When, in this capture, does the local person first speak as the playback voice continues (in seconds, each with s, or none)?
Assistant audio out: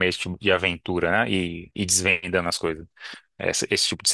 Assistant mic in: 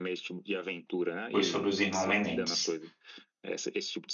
1.3 s